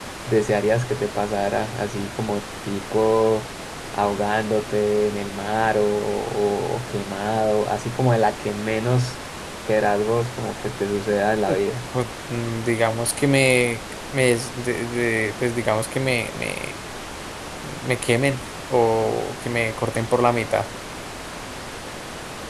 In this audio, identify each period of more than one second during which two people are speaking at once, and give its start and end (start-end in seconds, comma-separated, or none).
none